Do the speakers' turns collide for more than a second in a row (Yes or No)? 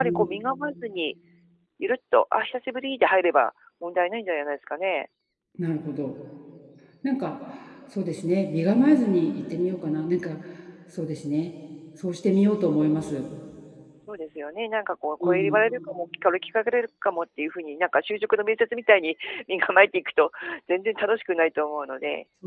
No